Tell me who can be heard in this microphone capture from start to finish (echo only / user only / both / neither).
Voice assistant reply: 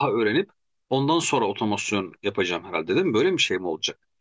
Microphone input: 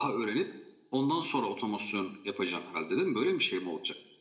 echo only